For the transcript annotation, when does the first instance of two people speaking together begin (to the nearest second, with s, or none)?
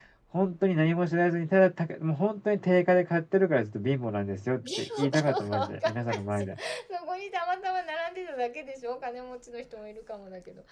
5 s